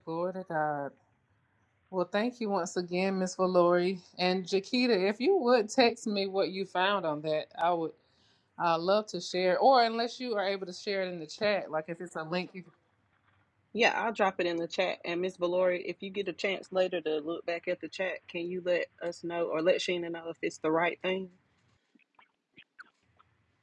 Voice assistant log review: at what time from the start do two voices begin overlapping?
none

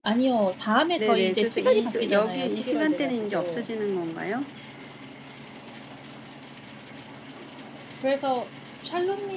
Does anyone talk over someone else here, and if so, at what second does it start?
1.0 s

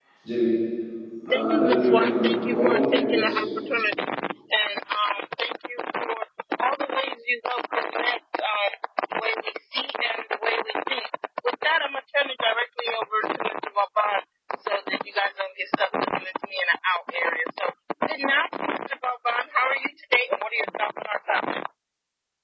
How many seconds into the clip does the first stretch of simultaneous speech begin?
1.3 s

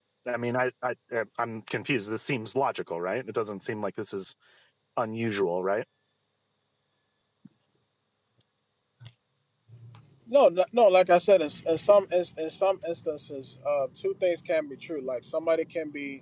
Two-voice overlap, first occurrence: none

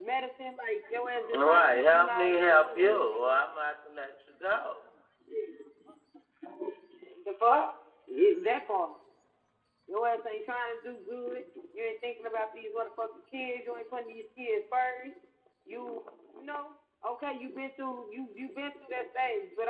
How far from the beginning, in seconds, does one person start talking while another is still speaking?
1.3 s

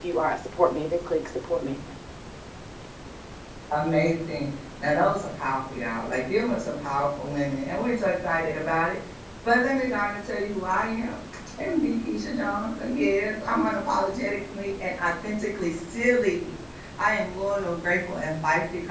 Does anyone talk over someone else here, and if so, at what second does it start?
none

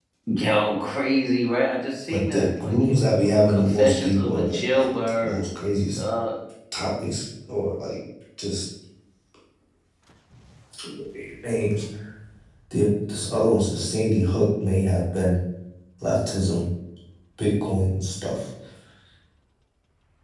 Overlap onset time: 2.1 s

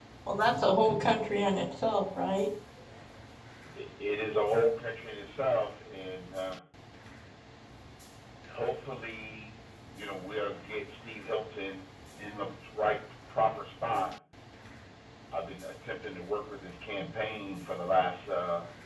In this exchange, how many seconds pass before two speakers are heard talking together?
none

